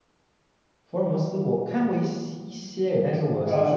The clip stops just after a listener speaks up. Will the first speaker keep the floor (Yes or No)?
No